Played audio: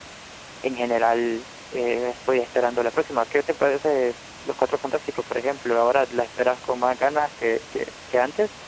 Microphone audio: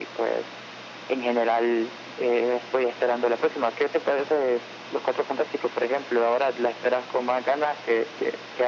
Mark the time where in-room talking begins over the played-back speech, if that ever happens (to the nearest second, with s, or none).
none